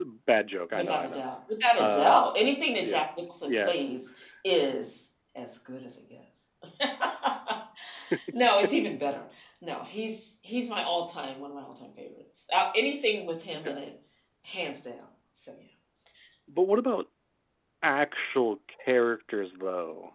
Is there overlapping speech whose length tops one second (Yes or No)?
No